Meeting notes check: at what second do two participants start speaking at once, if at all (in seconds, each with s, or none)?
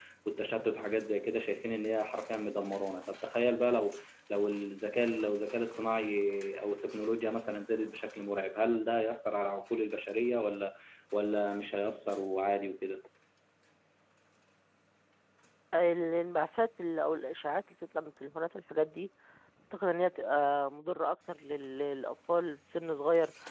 none